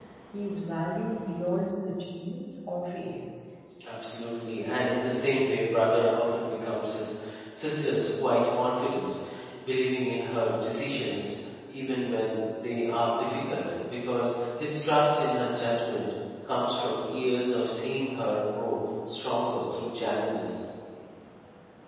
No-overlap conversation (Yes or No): Yes